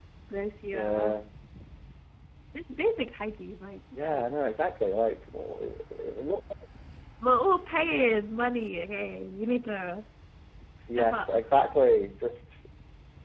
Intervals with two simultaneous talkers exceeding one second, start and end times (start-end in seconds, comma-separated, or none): none